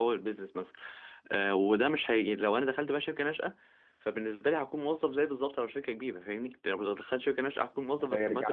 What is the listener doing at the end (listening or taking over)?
taking over